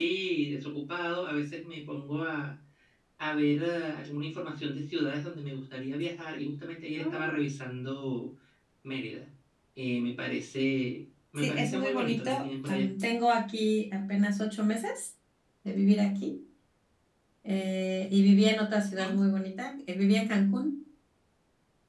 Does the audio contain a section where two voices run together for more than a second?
Yes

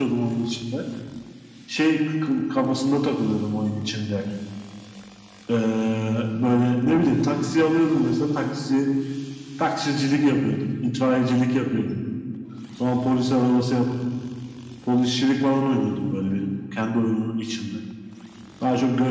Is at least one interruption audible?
No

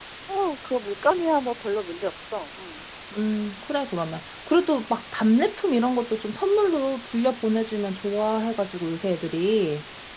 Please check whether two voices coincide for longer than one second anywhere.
No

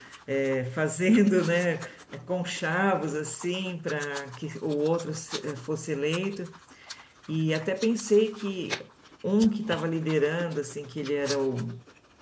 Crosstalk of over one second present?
No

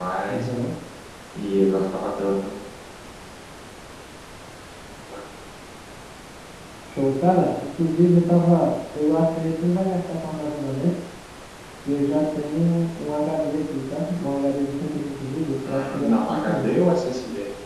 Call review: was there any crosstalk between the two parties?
Yes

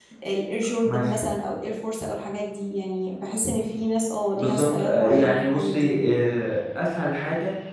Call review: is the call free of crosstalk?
No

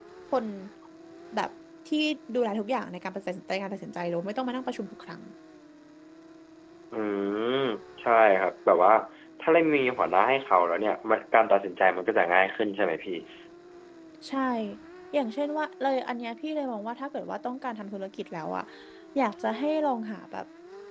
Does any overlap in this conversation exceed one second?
No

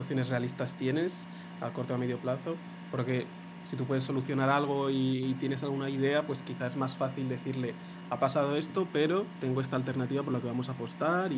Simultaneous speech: No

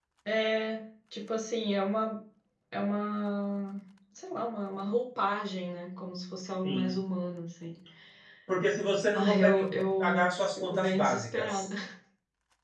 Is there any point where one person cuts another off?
Yes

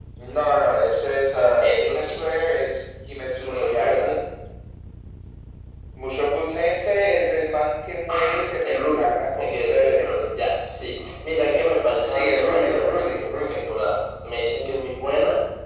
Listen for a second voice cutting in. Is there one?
Yes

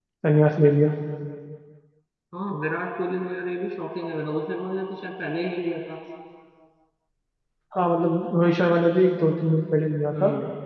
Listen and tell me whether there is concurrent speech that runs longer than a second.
No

